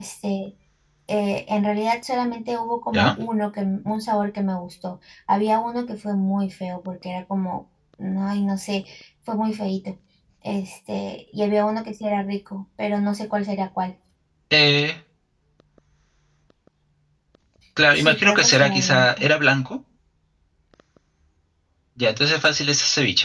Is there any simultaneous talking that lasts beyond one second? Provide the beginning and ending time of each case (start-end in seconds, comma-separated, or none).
17.9-19.3